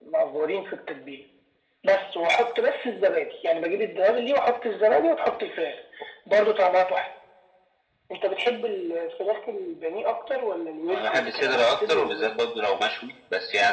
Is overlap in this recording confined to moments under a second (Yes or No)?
No